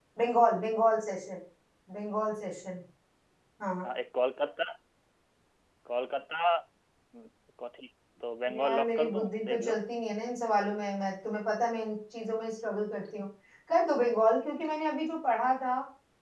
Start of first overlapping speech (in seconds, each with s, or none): 8.5 s